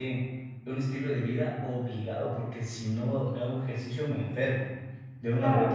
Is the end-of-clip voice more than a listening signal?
No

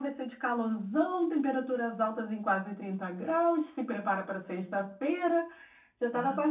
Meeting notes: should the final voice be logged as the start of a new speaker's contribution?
No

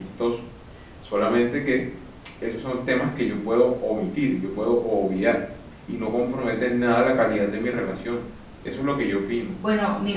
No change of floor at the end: No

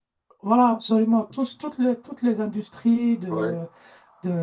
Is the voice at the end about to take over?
No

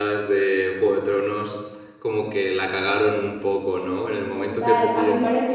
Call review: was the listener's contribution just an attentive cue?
No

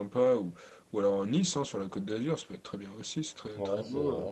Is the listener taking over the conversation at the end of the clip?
Yes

